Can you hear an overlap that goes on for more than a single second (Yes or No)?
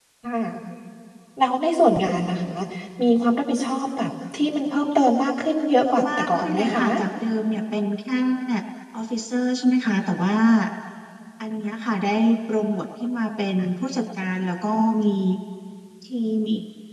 Yes